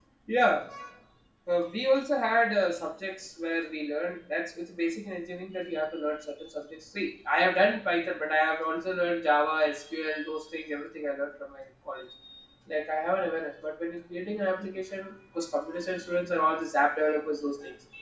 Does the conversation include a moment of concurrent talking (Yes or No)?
No